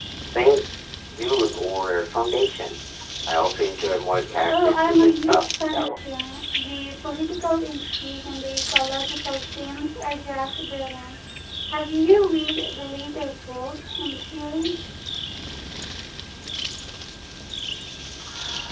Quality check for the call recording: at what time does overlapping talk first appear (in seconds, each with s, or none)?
4.5 s